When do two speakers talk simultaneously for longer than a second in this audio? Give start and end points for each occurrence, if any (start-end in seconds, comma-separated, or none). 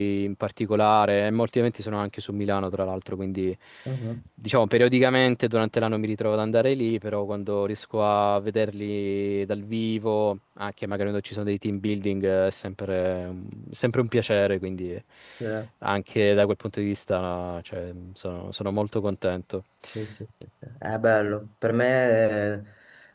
none